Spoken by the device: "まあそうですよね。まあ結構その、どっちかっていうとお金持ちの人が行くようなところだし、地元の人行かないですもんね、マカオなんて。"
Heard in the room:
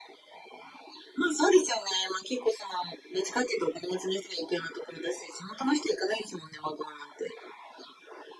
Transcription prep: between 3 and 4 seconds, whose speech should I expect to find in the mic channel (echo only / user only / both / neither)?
echo only